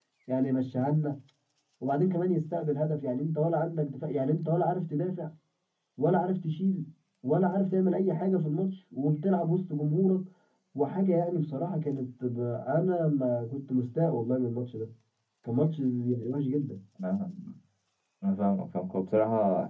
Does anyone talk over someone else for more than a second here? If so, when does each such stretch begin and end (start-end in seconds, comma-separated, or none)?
none